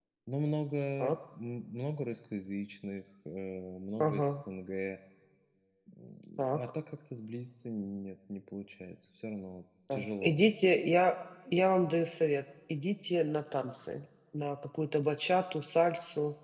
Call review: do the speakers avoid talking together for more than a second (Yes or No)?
Yes